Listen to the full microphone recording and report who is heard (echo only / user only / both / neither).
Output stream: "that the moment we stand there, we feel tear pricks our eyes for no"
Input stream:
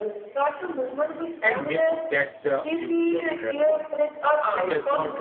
both